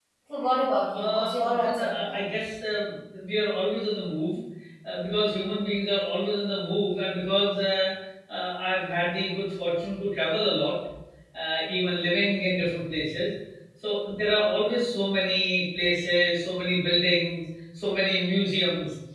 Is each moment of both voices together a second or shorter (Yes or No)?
No